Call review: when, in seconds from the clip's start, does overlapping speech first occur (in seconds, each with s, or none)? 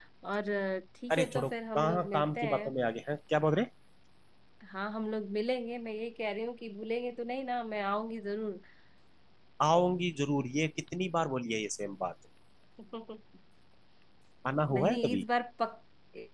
1.1 s